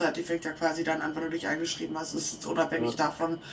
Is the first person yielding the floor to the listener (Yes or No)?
No